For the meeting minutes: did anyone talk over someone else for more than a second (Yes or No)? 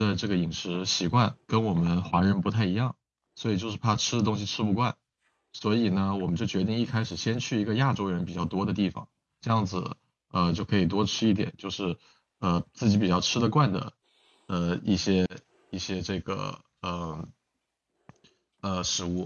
No